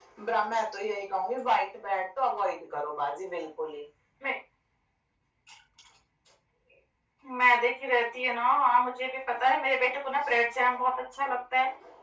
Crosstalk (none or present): none